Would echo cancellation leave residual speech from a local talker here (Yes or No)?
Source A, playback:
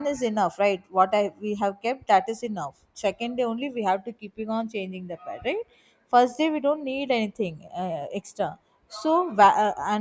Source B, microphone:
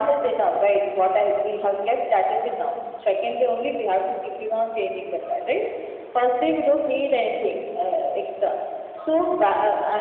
No